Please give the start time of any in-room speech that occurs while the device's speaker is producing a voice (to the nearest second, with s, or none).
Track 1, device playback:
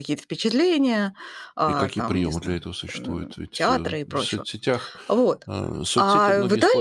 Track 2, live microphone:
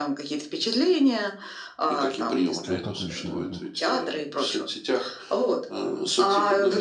3 s